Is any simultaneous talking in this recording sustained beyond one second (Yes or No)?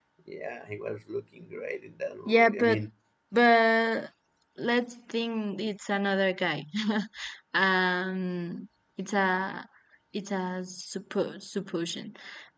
No